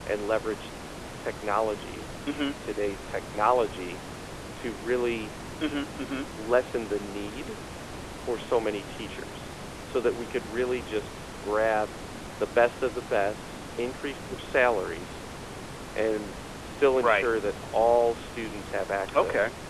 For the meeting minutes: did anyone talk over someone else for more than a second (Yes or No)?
No